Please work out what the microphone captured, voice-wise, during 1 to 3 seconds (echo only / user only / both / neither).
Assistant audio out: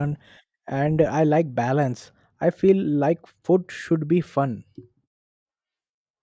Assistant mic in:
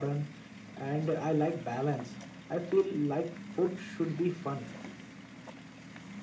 echo only